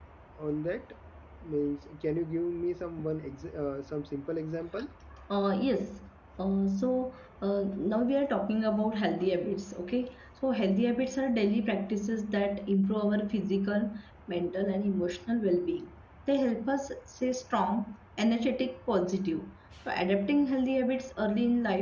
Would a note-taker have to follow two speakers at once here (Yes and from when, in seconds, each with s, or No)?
No